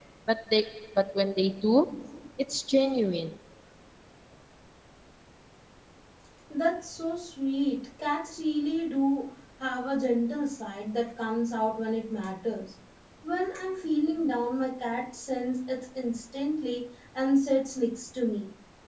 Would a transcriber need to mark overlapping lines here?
No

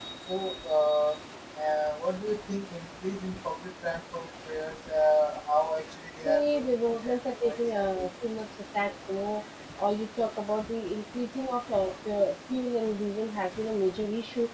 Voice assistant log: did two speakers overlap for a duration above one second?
Yes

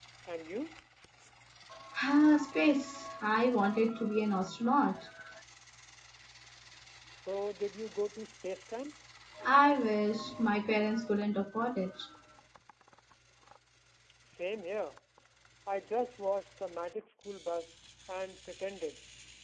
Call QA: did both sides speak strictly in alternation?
Yes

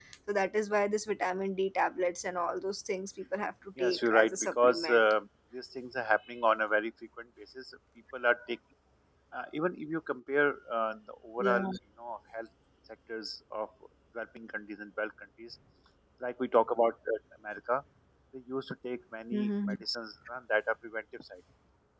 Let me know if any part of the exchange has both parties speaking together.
Yes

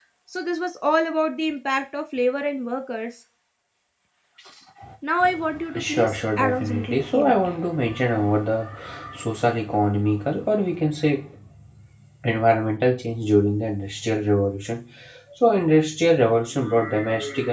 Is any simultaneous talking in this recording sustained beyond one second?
Yes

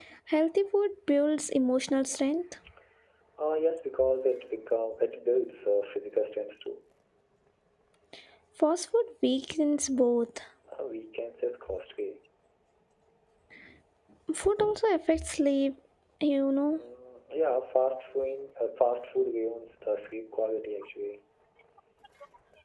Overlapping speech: No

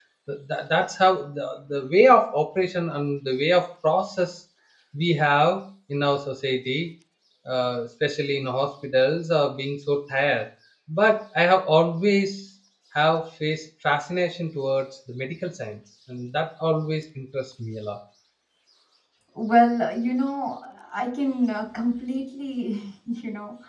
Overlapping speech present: No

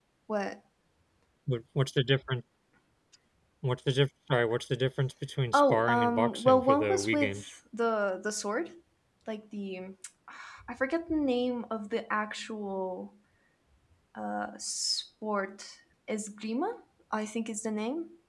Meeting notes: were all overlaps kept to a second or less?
No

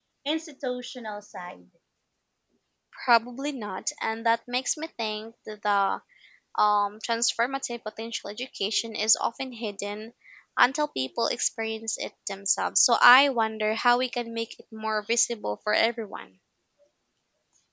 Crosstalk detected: No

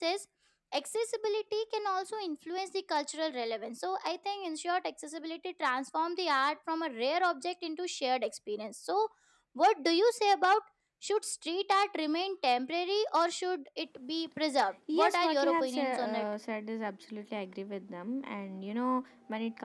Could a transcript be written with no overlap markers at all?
No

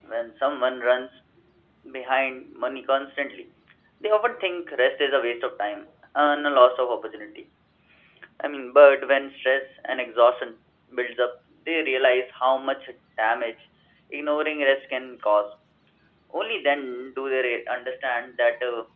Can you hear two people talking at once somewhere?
No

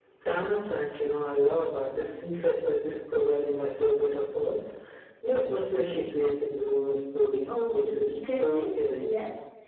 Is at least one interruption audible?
Yes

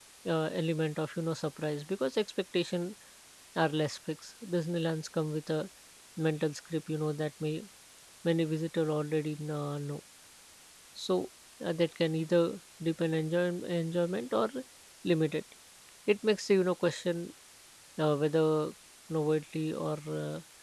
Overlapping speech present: No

